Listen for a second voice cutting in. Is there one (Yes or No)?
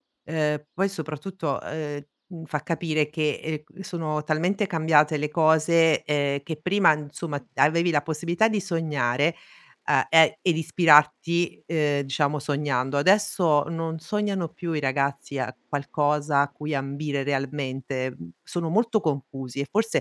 No